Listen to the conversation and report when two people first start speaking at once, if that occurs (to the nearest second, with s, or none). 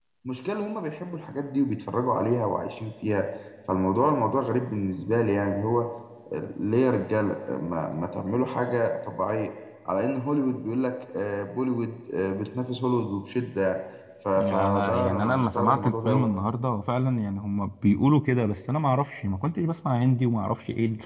14 s